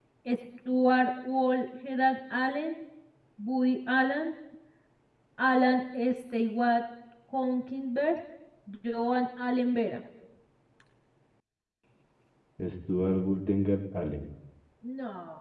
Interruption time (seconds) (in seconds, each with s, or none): none